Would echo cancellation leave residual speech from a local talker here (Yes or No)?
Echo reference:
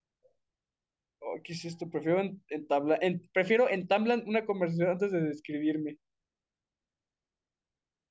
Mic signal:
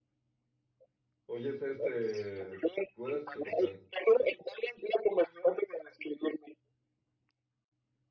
Yes